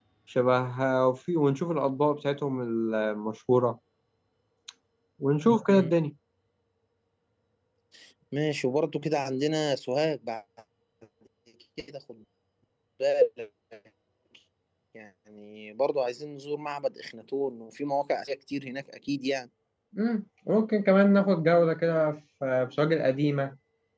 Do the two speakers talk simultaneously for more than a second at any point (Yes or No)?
No